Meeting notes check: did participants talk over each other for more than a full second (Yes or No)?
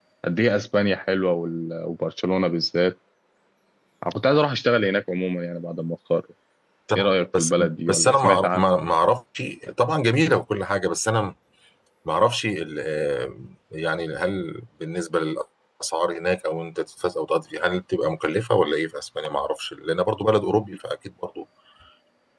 Yes